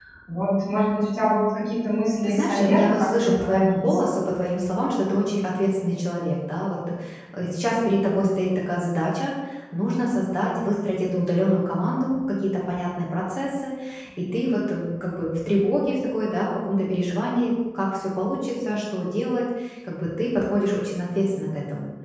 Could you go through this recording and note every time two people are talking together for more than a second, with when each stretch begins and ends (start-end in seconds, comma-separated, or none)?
2.2-3.8